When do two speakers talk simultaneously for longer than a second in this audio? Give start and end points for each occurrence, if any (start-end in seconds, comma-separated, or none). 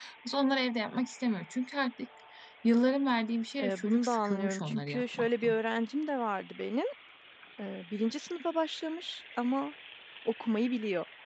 3.6-5.6